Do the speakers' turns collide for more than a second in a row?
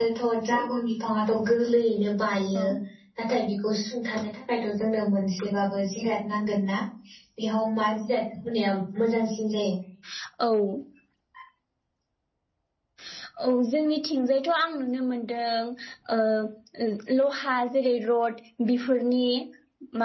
No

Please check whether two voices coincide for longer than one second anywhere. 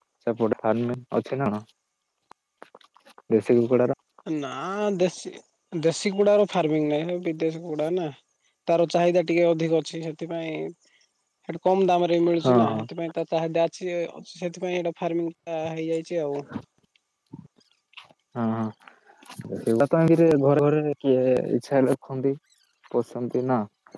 No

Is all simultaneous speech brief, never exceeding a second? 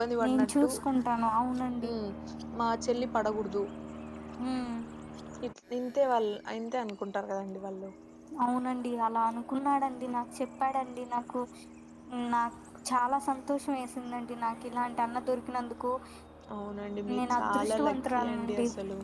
No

